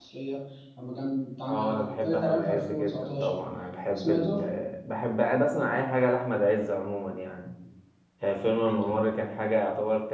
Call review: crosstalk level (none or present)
present